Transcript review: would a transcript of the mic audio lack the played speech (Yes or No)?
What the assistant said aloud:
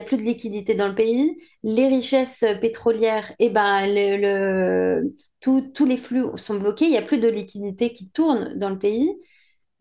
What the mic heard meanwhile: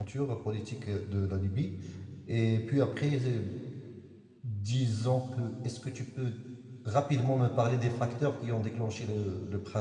Yes